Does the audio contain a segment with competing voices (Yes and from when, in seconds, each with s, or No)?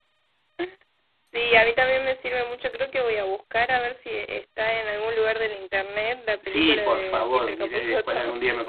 Yes, from 6.4 s